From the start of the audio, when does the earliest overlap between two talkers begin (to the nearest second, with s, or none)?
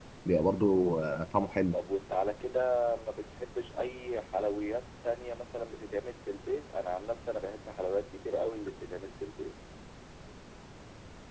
none